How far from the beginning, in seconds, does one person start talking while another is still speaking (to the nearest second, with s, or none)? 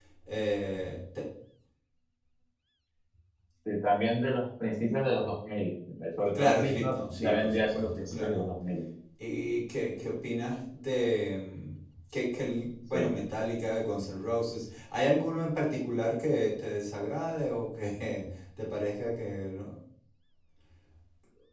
6 s